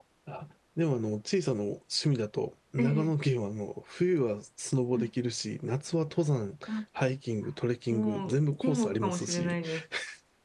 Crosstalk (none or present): present